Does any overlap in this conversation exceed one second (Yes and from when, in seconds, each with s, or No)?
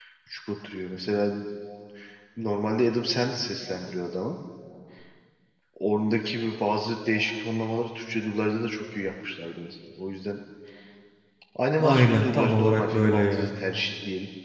Yes, from 11.8 s